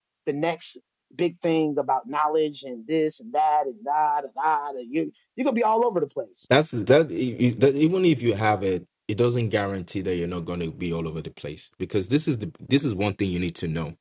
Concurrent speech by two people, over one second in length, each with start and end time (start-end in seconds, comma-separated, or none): none